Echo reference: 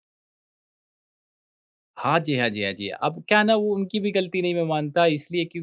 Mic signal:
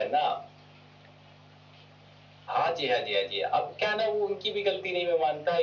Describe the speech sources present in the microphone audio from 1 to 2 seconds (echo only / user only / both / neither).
neither